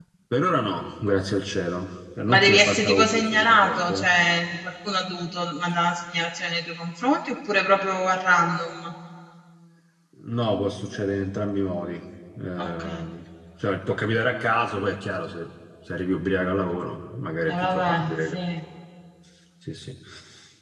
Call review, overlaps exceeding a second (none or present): present